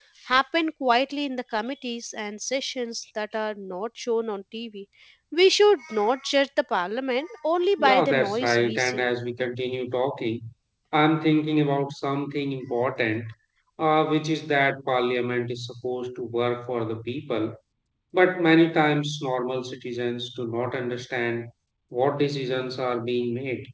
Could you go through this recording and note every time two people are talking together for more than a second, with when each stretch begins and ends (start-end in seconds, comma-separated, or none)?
7.8-9.1